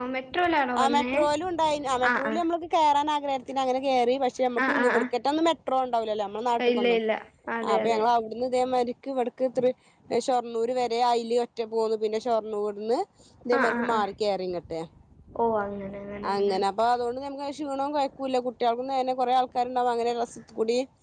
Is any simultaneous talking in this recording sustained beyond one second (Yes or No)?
No